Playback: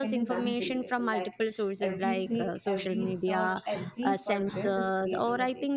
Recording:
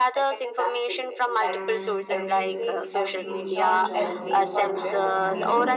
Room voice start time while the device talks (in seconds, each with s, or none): 1.4 s